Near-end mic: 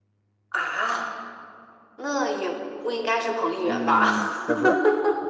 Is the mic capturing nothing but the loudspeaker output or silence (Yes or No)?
No